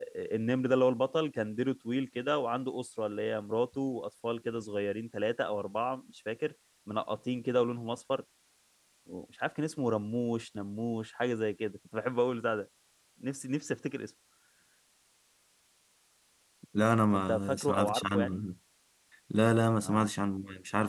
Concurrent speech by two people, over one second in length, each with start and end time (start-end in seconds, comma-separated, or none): 17.1-18.4